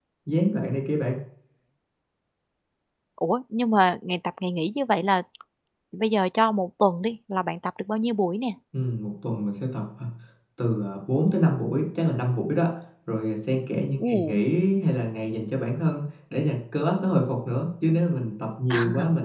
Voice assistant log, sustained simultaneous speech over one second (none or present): none